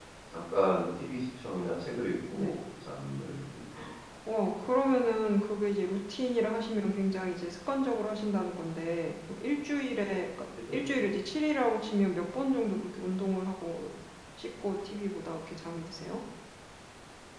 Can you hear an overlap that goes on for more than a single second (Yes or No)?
No